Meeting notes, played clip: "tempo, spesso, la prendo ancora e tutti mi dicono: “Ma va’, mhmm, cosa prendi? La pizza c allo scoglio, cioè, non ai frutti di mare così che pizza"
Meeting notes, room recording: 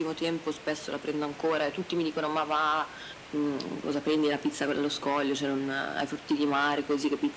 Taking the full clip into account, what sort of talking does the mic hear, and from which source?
echo only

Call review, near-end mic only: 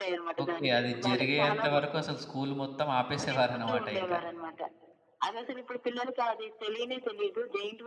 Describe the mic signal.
both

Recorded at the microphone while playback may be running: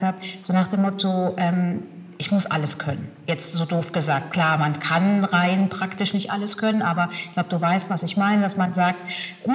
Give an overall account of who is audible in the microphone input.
echo only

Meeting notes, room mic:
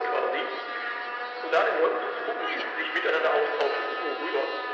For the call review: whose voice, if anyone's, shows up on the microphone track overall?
both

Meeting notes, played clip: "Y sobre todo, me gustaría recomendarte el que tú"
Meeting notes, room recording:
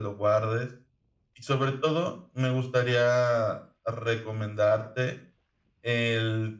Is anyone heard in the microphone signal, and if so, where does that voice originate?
echo only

